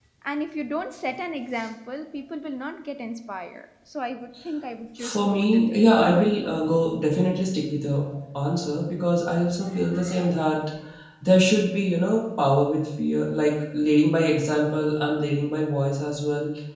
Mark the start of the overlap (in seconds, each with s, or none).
5.0 s